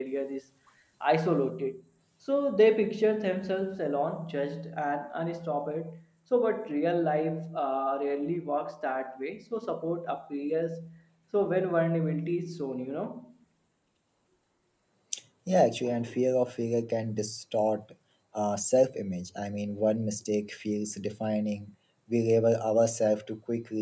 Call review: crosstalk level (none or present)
none